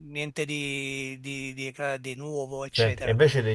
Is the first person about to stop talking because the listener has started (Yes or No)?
Yes